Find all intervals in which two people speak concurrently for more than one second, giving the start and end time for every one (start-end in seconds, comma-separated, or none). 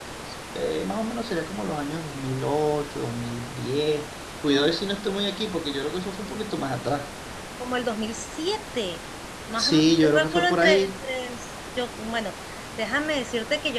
9.6-10.9